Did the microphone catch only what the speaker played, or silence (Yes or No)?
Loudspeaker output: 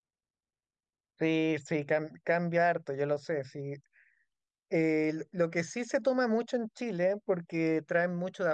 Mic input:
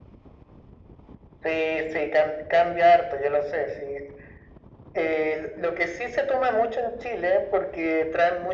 Yes